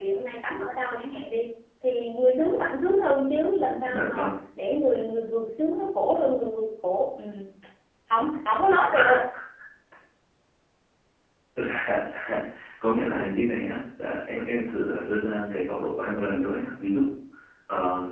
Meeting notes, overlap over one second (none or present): none